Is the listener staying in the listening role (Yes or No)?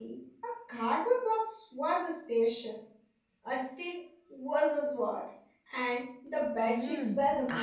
No